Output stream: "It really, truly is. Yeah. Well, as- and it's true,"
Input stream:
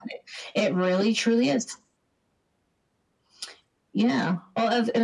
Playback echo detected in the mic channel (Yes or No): Yes